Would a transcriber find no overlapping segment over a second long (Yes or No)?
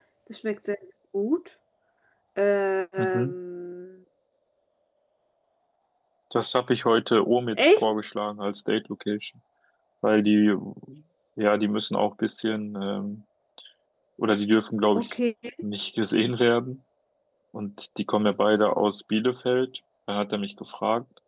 Yes